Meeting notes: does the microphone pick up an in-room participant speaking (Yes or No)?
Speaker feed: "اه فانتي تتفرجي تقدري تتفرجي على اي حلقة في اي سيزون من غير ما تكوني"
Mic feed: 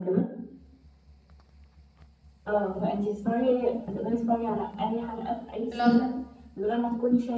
Yes